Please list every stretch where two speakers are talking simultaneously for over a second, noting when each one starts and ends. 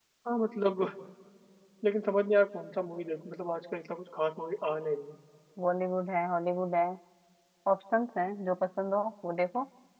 none

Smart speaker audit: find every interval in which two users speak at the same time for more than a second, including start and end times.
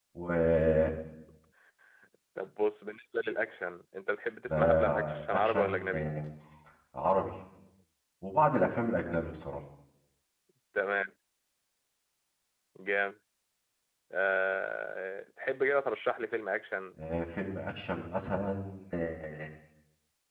4.5-6.1

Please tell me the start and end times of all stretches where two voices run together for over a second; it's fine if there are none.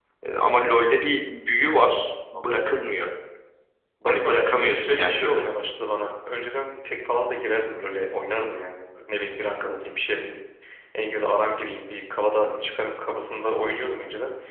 4.0-5.4

